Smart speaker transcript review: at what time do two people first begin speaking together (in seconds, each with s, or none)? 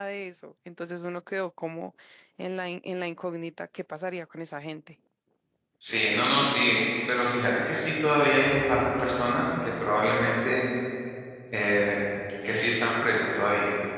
none